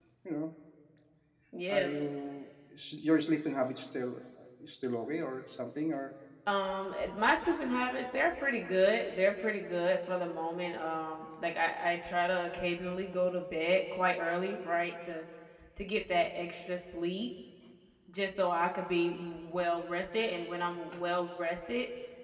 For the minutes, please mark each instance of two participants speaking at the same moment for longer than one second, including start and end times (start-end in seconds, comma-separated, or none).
none